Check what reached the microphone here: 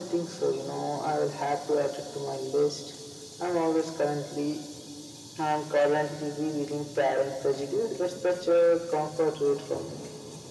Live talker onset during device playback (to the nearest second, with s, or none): none